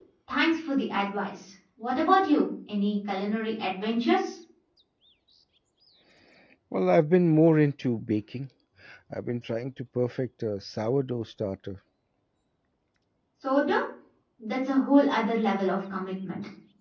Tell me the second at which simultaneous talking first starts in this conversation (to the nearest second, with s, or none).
none